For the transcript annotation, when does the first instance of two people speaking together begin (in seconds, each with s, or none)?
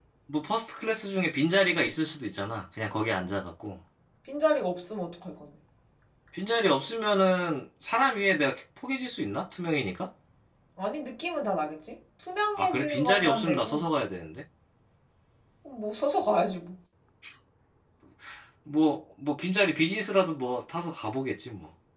12.6 s